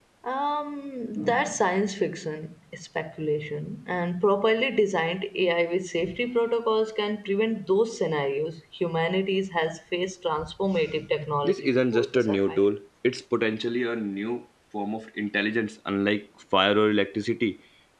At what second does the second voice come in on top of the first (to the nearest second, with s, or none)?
11 s